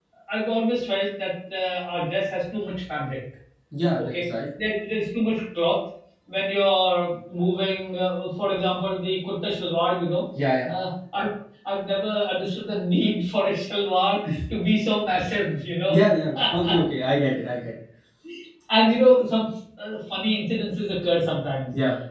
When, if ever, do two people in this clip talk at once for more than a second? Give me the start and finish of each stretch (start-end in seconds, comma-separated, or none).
none